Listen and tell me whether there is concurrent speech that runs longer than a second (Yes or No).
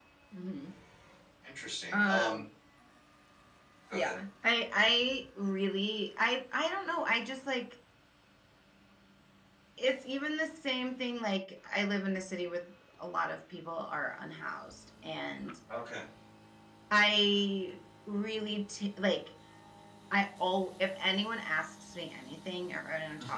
No